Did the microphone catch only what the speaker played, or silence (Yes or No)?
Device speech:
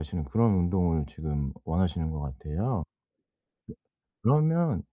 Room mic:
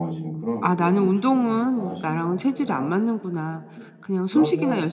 No